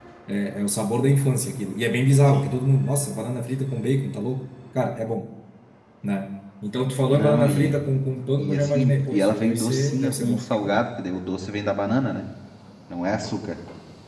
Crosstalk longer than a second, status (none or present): present